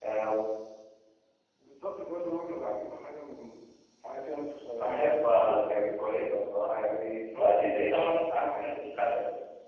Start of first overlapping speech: 4.8 s

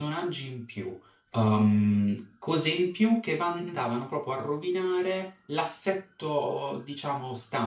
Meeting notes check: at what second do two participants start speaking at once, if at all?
none

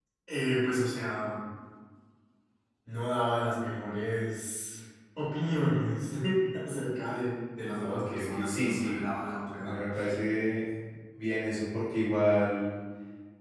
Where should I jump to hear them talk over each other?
7.8 s

